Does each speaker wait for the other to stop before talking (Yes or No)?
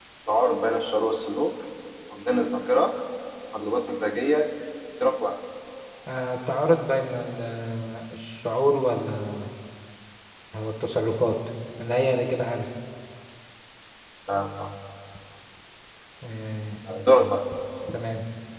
Yes